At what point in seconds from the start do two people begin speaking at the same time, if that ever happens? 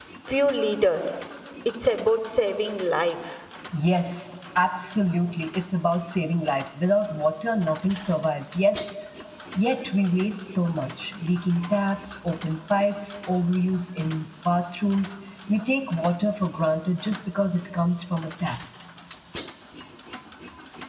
none

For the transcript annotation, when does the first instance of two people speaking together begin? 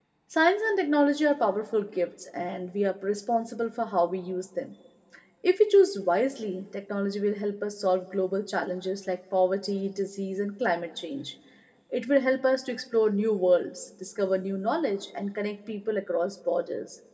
none

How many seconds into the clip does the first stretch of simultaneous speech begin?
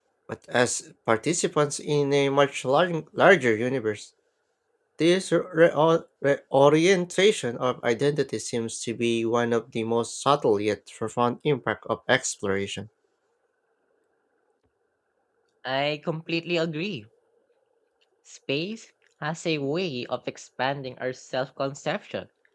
none

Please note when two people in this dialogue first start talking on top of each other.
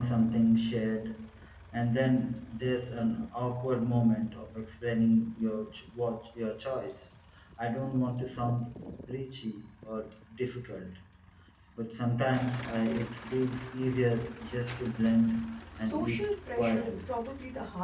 15.8 s

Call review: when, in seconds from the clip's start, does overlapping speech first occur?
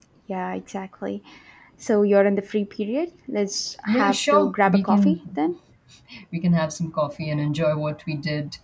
3.9 s

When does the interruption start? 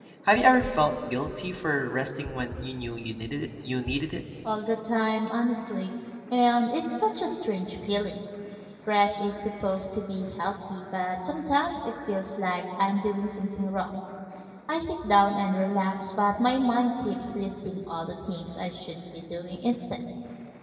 none

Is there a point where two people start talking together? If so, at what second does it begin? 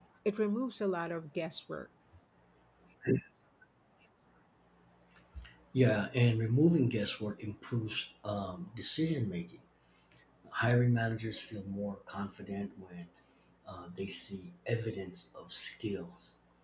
none

